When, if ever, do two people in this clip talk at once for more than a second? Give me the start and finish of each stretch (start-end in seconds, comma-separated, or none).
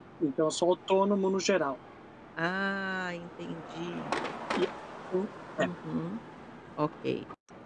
none